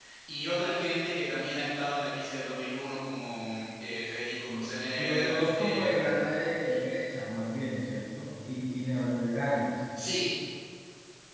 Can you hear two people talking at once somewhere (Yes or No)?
Yes